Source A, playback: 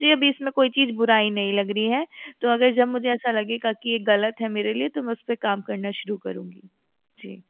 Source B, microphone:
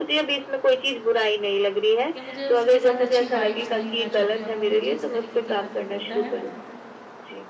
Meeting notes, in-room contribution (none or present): present